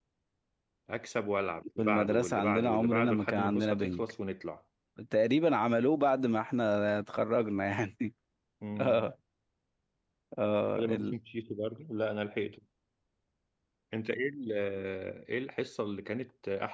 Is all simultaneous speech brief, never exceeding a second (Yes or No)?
No